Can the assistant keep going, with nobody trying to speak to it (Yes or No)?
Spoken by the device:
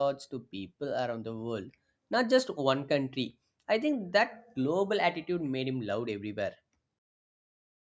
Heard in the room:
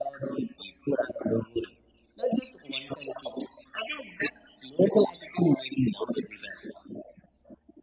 Yes